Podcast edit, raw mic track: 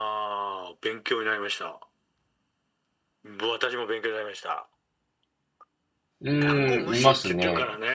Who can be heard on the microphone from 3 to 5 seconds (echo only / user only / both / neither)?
echo only